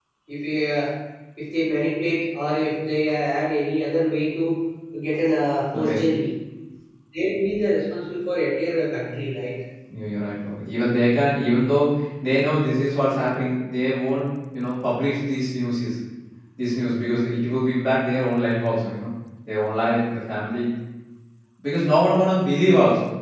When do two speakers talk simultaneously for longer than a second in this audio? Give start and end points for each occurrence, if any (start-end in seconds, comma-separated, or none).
none